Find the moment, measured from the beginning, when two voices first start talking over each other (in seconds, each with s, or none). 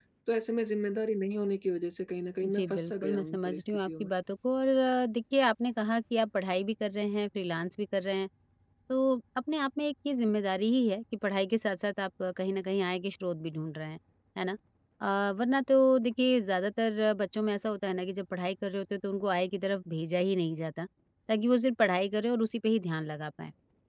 2.4 s